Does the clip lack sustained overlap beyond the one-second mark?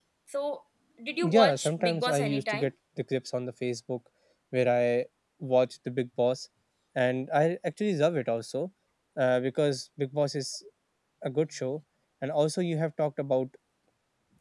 No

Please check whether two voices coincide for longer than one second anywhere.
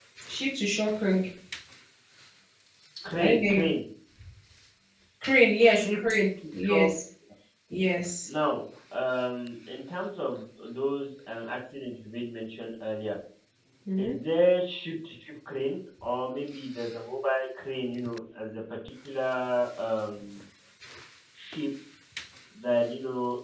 No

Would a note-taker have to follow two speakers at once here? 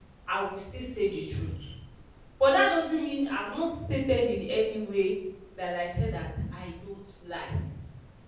No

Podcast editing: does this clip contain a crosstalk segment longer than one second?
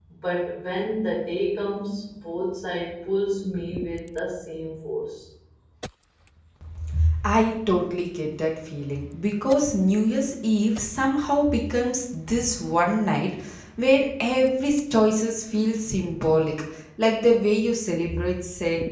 No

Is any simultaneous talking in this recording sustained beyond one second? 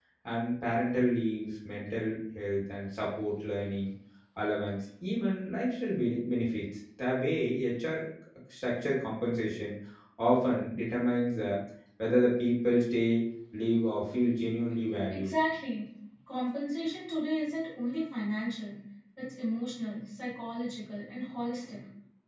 No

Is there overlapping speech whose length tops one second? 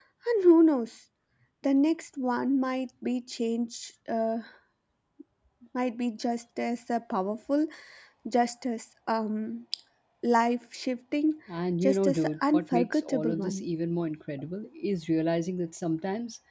Yes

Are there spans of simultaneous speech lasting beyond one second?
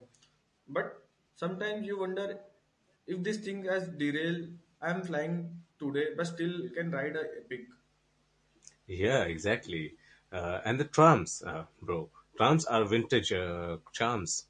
No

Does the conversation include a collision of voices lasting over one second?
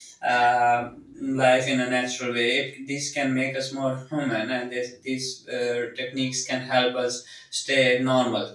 No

